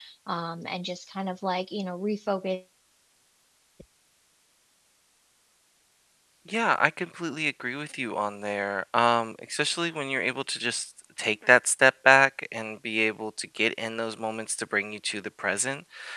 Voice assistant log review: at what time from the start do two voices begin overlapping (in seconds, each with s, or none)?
none